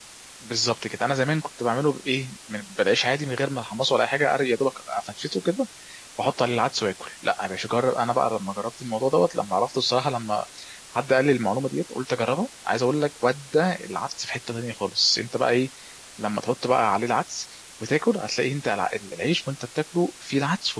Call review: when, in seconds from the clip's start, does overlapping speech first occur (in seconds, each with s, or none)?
none